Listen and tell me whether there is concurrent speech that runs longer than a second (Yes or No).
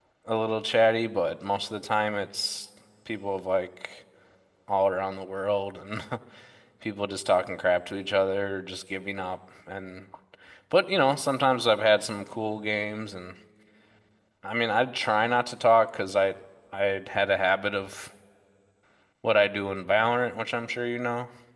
No